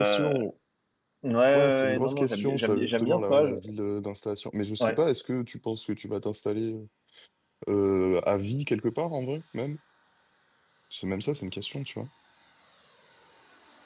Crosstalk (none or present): present